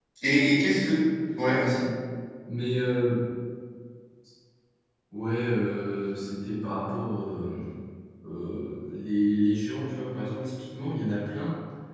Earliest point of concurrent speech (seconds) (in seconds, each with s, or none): none